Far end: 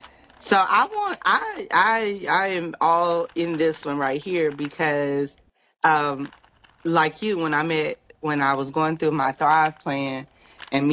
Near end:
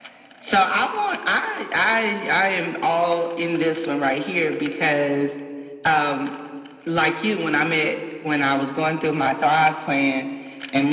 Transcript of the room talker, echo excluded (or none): none